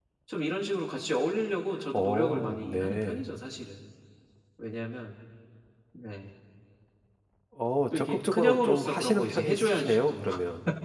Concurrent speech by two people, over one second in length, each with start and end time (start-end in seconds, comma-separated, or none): 1.9-3.2, 7.9-10.3